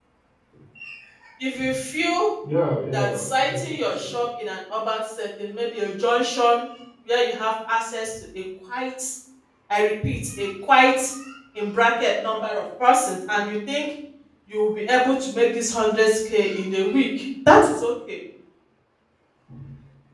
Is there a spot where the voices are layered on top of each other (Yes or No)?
Yes